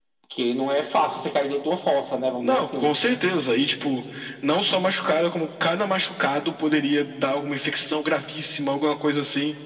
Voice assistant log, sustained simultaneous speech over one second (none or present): none